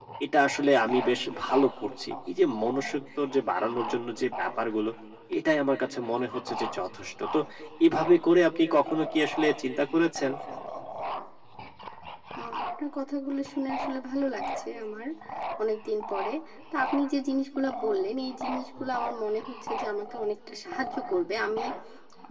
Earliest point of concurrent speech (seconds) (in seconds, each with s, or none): none